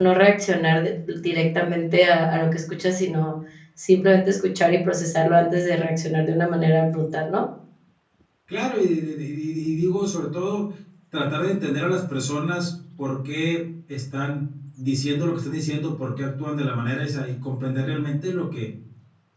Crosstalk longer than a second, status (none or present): none